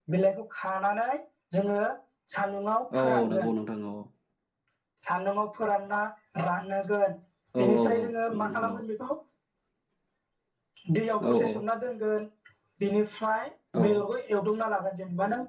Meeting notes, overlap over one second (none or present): present